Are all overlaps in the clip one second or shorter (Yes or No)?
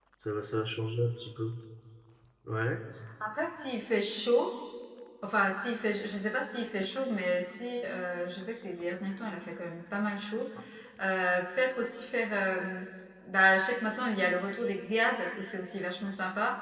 Yes